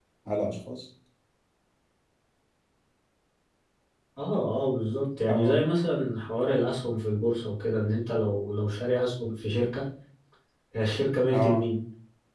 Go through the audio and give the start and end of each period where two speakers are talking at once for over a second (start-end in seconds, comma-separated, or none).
none